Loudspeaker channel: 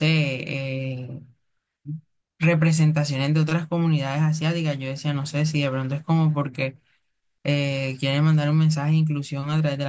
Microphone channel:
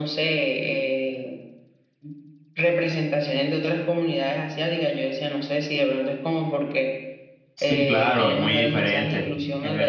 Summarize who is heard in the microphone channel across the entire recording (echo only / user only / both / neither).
both